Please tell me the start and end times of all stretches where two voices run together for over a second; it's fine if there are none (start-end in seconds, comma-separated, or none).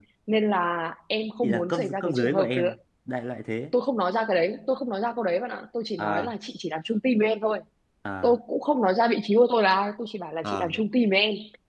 1.4-2.7